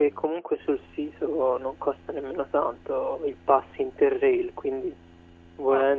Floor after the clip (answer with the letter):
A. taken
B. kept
B